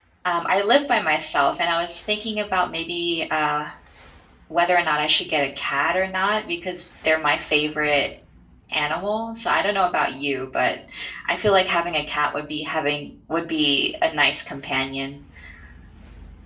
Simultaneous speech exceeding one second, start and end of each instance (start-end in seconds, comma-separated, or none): none